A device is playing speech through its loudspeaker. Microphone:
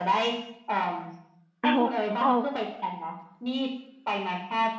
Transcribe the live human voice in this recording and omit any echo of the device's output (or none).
เอาเอา